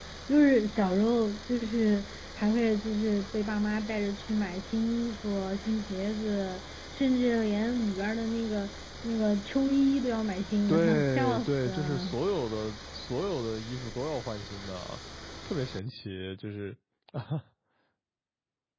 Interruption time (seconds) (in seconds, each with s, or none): 10.7 s